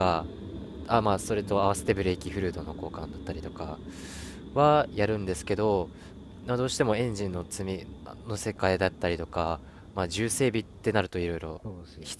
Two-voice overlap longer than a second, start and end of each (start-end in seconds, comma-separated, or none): none